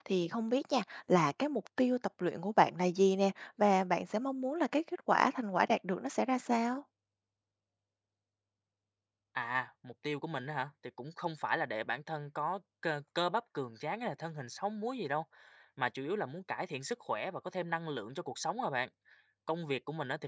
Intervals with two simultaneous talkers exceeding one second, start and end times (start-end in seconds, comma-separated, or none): none